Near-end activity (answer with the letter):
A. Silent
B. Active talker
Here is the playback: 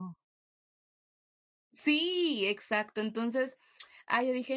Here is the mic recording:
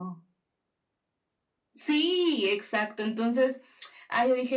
A